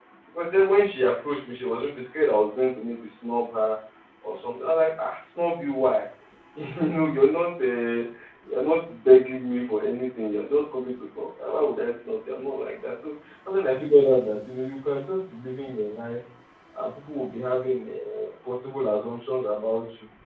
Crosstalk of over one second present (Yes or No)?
No